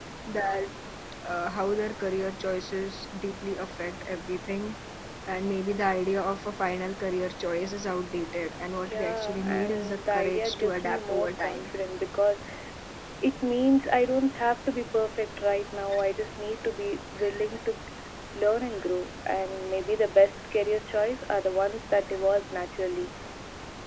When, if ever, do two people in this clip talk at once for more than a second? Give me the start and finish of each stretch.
8.9-11.7

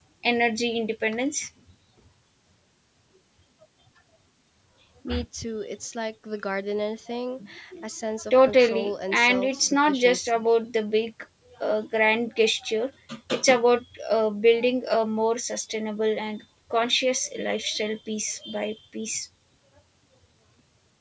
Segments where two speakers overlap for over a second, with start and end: 8.3-10.4

